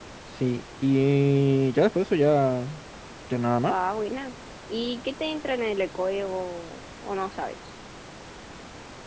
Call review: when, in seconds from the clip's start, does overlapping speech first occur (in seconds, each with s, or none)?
none